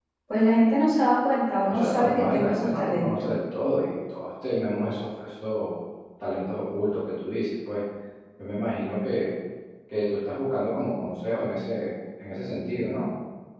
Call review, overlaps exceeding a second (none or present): present